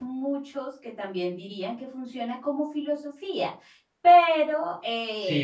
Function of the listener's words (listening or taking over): taking over